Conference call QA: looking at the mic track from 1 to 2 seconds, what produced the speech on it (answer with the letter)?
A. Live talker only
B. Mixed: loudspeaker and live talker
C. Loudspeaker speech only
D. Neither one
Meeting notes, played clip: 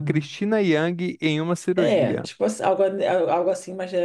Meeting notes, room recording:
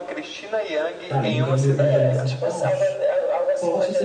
B